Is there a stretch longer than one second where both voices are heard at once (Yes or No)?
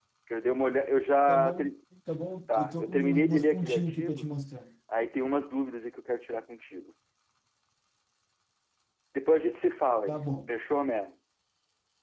Yes